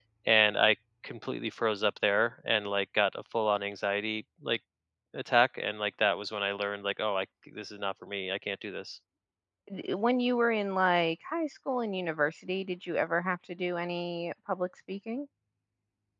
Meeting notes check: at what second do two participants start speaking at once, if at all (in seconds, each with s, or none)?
none